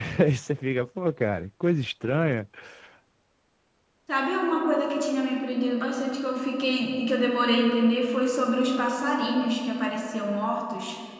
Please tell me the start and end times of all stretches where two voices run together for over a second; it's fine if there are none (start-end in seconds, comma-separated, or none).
none